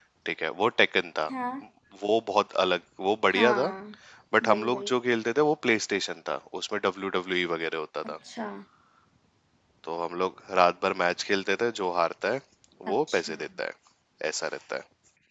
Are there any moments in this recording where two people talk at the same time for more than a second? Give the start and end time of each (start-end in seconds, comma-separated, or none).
none